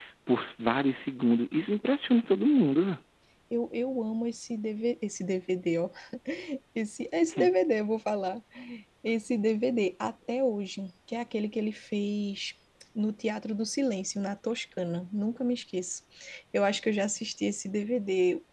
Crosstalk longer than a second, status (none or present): none